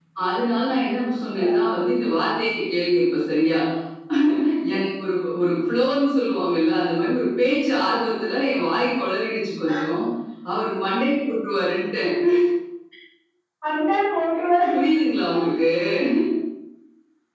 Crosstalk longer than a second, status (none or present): none